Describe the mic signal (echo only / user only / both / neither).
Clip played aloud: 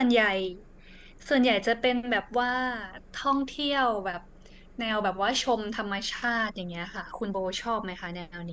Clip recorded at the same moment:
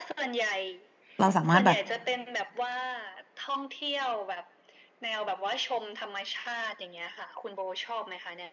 both